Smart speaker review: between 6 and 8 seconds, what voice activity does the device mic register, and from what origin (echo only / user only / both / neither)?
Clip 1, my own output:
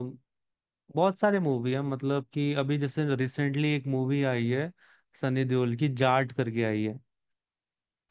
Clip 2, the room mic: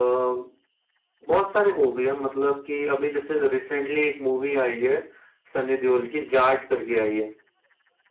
echo only